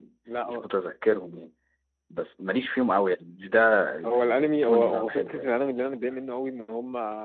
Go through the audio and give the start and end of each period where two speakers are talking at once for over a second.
4.0-5.5

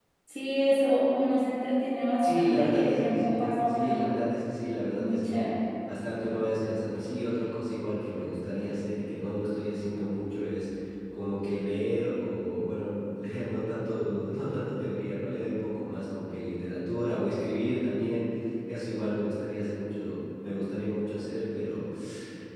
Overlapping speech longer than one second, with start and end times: 2.2-4.1

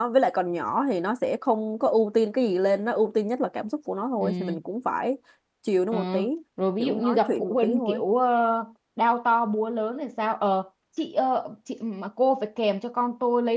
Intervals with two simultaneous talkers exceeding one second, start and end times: 6.8-8.0

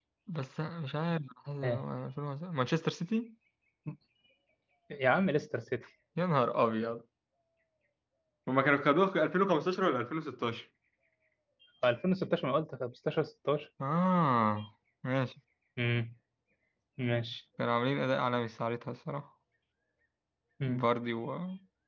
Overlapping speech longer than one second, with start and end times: none

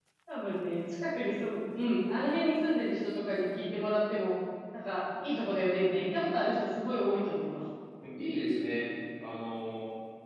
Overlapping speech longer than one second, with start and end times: none

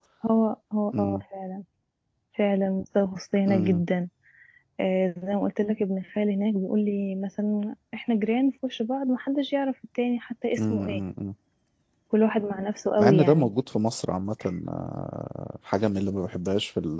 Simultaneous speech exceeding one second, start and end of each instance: none

